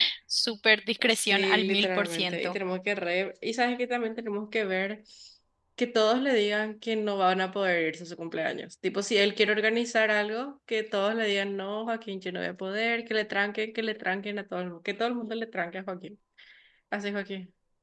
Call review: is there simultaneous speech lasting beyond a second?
Yes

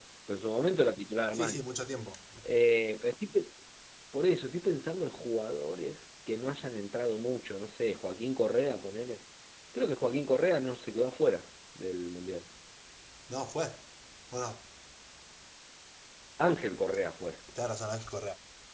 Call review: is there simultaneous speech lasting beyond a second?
No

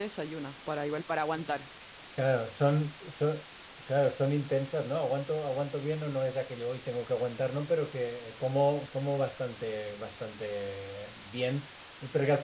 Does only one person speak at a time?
Yes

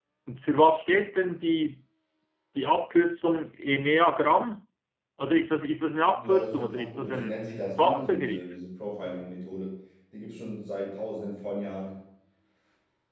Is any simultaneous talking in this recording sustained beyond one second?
Yes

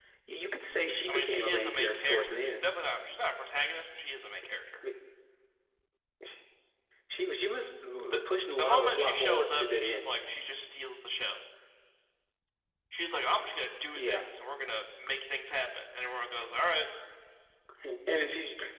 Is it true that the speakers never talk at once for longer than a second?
No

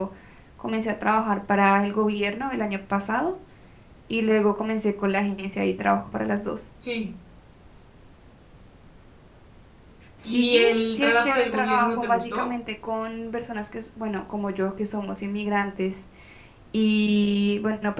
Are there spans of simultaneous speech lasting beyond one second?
Yes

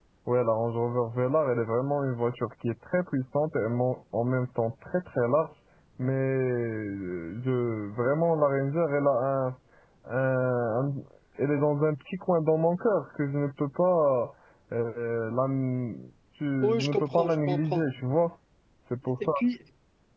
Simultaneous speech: Yes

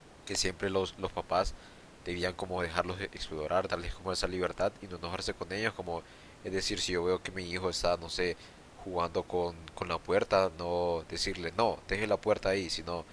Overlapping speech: No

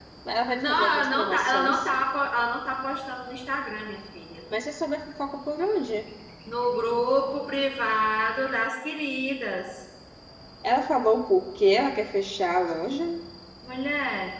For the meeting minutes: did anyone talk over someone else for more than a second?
Yes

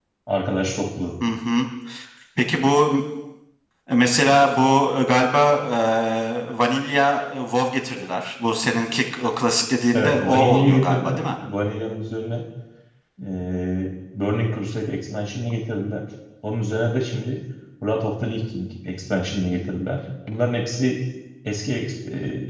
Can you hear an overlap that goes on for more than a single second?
Yes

